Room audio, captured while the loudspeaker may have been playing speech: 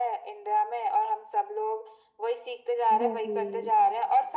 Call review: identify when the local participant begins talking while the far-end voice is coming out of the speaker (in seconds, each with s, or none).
2.9 s